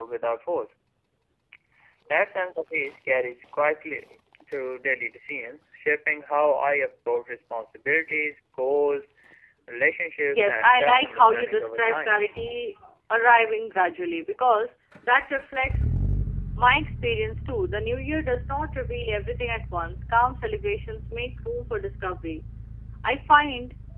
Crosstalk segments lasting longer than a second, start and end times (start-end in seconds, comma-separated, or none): 10.2-12.2